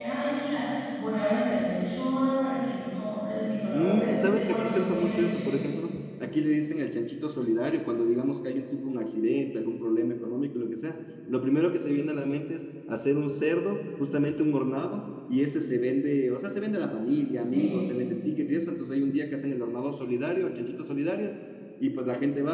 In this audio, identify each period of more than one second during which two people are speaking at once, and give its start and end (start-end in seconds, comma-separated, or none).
3.7-5.5